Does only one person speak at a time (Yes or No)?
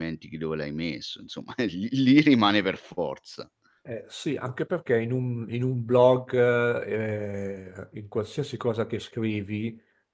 Yes